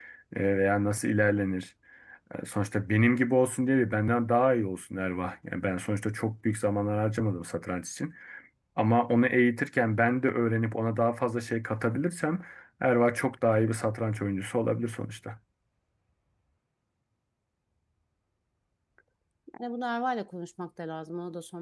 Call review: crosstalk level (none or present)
none